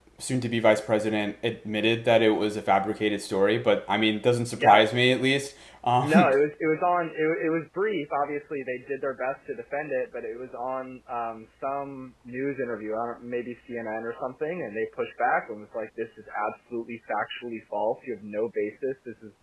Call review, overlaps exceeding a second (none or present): none